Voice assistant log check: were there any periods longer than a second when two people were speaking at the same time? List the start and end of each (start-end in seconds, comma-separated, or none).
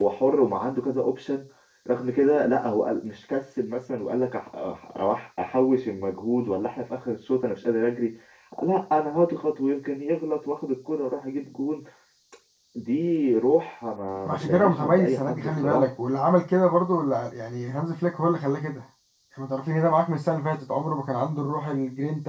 14.3-15.9